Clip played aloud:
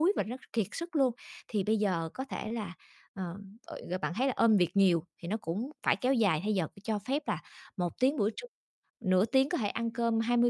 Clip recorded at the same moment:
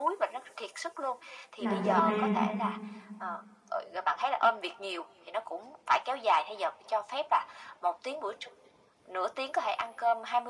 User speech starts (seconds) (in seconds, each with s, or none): 1.6 s